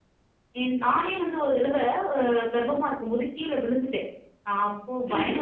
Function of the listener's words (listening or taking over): listening